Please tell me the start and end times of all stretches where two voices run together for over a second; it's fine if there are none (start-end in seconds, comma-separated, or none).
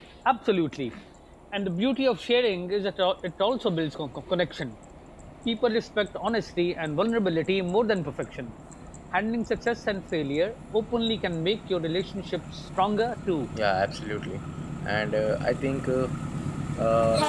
none